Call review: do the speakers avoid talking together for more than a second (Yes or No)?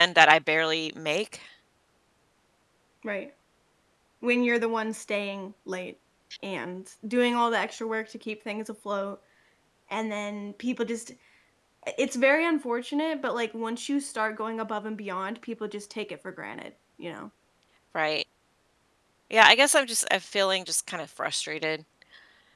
Yes